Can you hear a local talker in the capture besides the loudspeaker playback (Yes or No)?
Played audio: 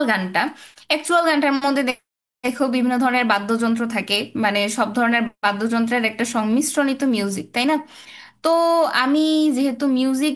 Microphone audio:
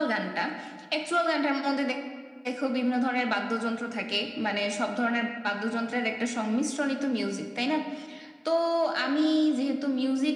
No